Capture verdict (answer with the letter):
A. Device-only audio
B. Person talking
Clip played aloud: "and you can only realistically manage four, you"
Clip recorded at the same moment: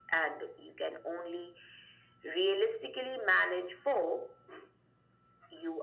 A